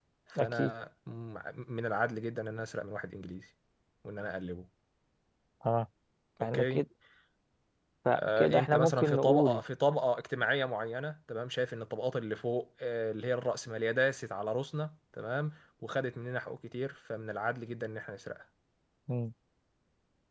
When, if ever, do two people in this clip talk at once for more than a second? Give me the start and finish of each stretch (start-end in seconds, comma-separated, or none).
8.1-9.6